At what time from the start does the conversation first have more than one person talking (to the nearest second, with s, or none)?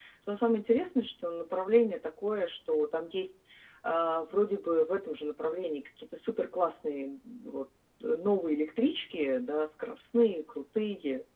none